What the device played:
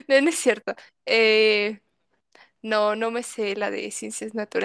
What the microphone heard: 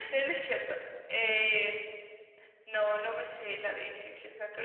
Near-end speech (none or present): none